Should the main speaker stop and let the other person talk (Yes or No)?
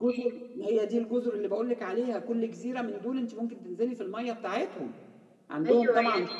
Yes